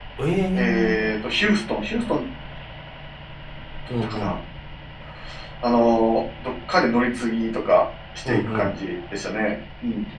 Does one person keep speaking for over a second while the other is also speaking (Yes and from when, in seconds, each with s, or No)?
No